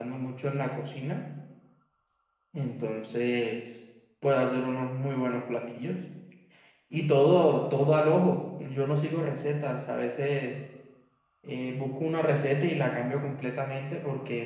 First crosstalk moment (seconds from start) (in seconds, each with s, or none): none